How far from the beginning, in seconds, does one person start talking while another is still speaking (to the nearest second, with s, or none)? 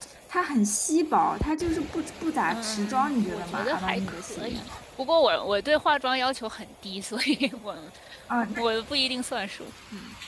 2 s